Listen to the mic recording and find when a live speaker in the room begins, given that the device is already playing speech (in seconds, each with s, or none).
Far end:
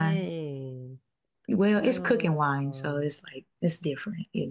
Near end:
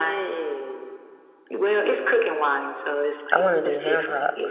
3.3 s